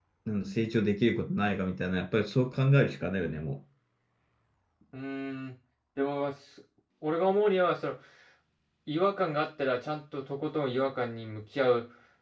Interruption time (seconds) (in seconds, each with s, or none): none